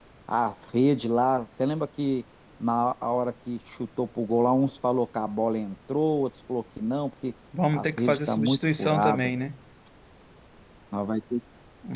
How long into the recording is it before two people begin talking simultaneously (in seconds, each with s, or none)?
7.5 s